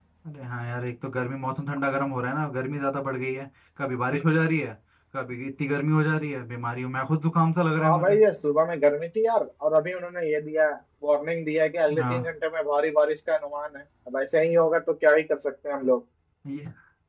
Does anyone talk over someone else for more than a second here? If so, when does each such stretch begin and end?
none

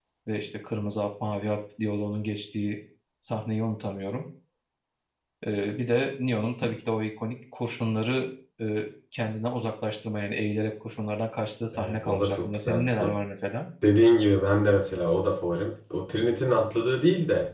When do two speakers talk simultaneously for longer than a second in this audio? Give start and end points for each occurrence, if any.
11.8-13.1

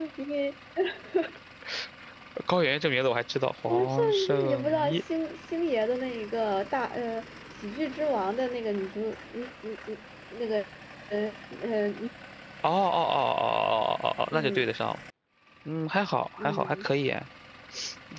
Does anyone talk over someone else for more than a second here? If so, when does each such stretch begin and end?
3.7-5.0

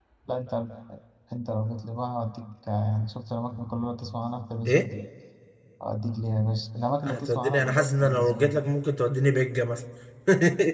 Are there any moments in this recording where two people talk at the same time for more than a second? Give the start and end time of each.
7.0-8.6

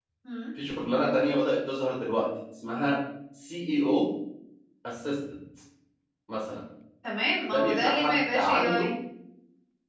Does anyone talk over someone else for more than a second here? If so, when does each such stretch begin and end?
7.5-8.9

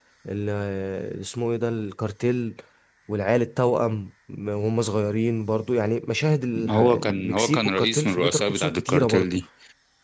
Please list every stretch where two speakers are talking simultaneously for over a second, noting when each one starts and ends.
6.7-9.4

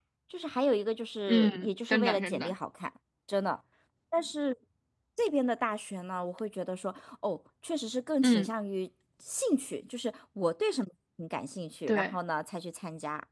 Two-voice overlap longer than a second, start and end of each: 1.3-2.5

